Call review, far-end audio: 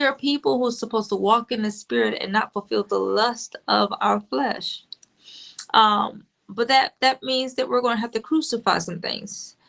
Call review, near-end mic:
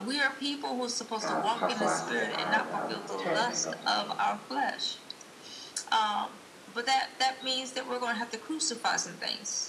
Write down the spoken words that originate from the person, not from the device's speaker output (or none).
Uh, Apostle, I, s- I, um, turn it back over to you.